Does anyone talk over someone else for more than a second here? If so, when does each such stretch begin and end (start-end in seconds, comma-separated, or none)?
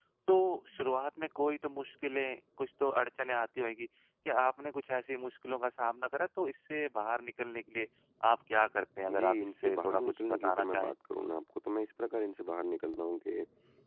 9.1-10.9